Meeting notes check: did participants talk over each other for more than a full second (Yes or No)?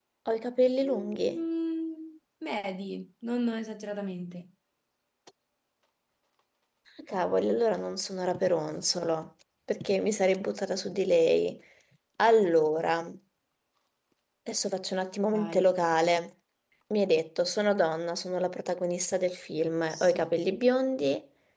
No